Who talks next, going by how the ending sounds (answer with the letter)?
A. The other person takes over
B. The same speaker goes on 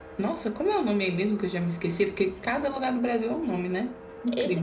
A